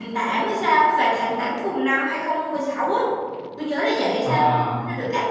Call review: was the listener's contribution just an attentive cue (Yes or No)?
Yes